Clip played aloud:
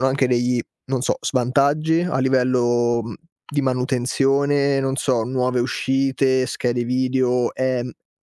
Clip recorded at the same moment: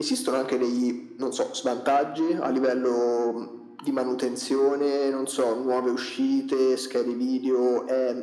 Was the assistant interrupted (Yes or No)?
No